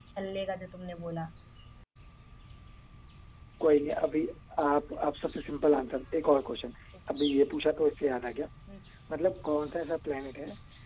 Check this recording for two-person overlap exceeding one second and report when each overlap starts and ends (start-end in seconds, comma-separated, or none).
none